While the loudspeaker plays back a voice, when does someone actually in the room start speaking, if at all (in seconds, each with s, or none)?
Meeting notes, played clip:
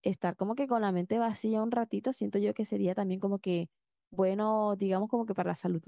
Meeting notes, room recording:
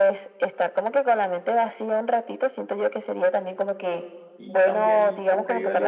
4.4 s